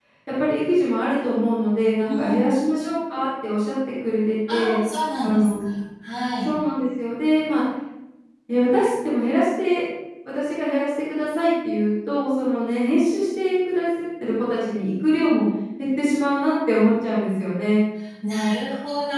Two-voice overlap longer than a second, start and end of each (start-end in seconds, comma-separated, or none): none